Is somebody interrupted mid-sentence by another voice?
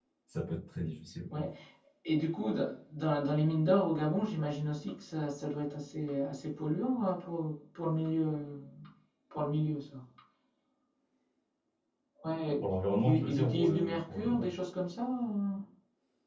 Yes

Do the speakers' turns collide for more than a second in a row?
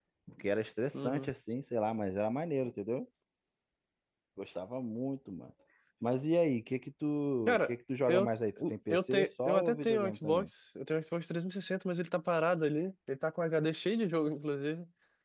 Yes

